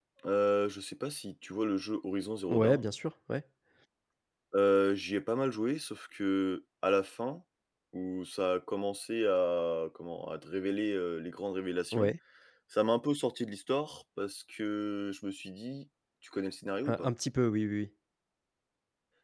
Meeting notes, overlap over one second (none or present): none